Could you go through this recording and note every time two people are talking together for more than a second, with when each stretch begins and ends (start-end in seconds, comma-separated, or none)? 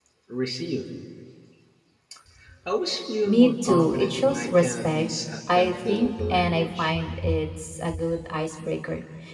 3.2-5.0, 5.6-6.9